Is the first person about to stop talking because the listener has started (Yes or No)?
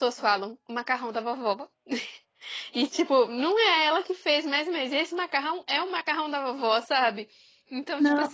No